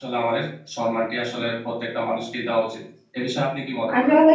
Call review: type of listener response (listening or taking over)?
taking over